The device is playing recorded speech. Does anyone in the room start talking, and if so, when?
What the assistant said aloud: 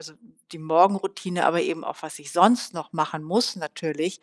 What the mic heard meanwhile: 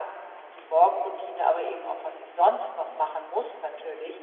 none

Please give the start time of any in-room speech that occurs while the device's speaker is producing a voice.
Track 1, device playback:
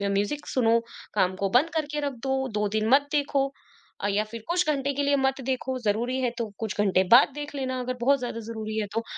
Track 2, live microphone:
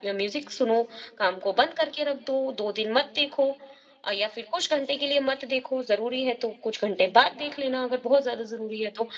none

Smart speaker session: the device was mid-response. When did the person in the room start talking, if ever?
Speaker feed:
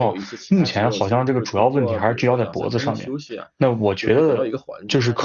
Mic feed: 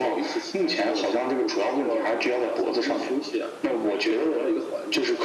none

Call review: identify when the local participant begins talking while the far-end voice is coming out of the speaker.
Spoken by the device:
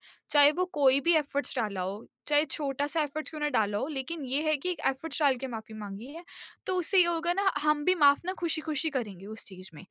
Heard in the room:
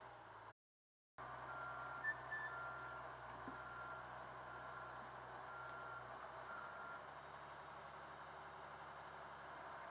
none

